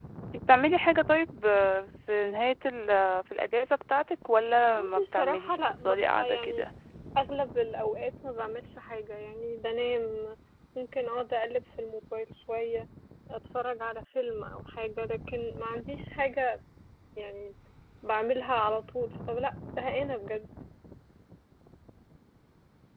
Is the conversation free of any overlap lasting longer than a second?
No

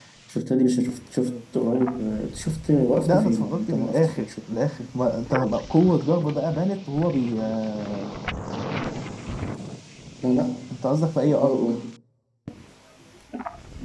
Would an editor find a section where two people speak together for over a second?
Yes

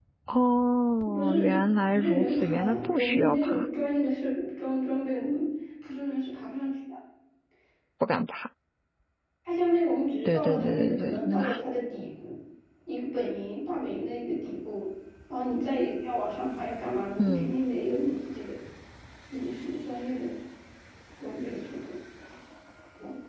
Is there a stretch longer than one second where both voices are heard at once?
Yes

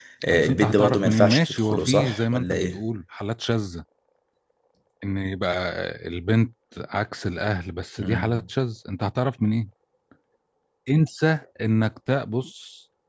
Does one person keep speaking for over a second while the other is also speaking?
Yes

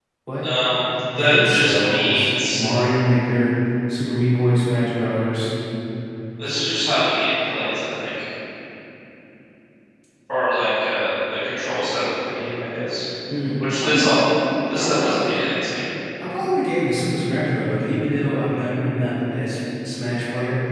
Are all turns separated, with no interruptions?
No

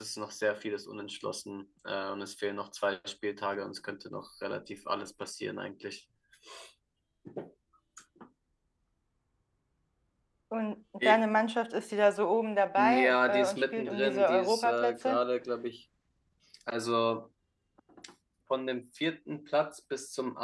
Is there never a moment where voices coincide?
No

